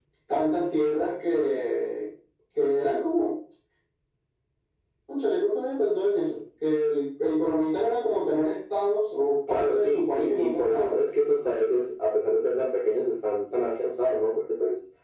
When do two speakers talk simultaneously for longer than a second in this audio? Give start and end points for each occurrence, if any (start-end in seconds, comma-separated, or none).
9.5-10.9